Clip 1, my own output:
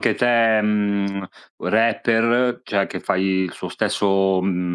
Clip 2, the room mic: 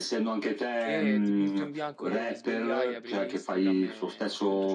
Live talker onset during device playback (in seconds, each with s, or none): 0.8 s